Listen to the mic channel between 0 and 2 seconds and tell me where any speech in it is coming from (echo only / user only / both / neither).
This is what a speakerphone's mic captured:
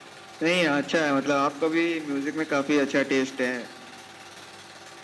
echo only